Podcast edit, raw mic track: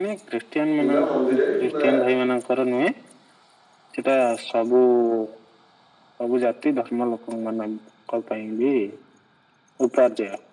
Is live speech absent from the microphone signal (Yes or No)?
No